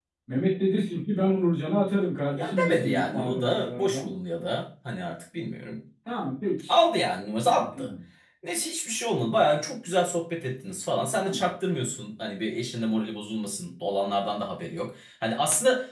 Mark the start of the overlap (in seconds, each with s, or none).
2.3 s